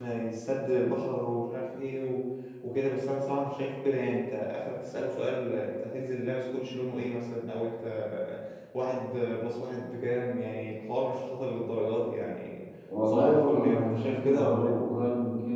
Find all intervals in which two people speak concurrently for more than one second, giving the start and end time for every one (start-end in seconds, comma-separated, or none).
13.1-14.8